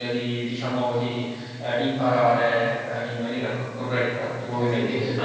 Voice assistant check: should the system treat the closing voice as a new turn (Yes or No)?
No